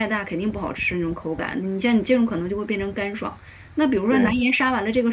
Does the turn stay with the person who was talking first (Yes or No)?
Yes